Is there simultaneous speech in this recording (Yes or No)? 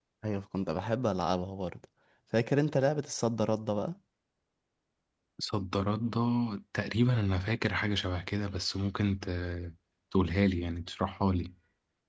No